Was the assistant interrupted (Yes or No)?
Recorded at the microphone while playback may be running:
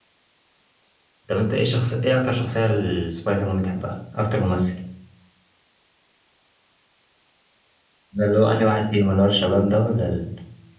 Yes